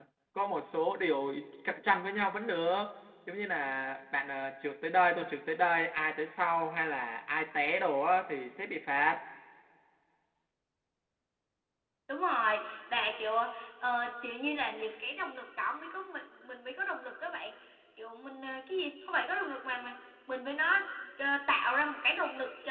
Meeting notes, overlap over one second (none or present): none